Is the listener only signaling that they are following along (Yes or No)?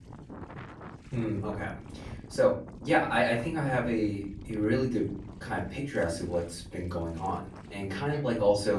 Yes